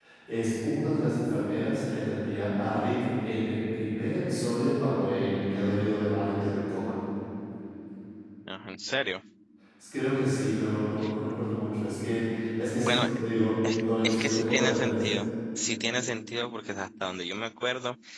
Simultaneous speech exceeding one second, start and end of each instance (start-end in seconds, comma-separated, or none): 13.8-15.1